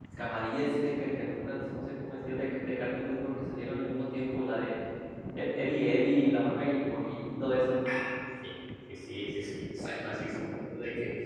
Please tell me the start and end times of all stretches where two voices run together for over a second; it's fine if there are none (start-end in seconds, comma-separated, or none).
none